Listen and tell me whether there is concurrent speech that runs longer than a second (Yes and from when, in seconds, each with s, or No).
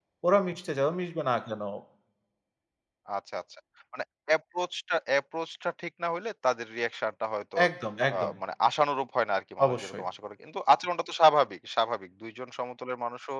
No